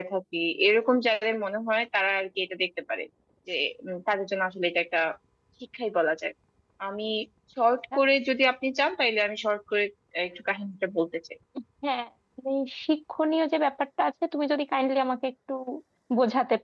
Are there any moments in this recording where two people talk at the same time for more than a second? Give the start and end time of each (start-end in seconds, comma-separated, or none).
none